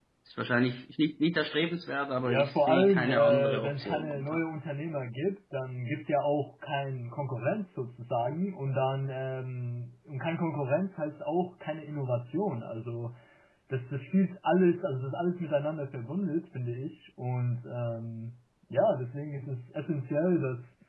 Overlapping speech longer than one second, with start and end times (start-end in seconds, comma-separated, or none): 2.2-4.4